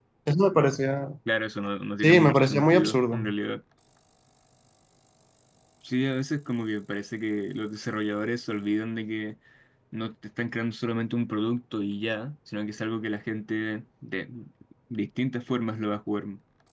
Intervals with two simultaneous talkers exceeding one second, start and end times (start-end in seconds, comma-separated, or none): 2.0-3.3